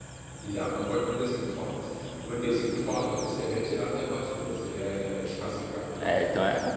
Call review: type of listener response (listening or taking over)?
taking over